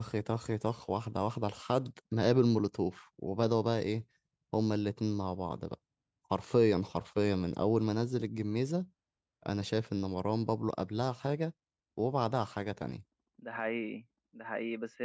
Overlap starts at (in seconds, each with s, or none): none